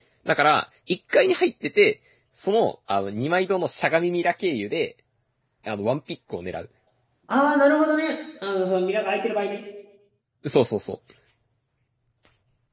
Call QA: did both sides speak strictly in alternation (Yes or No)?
Yes